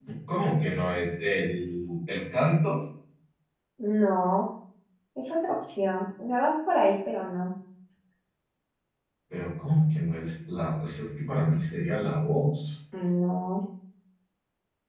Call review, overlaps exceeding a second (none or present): none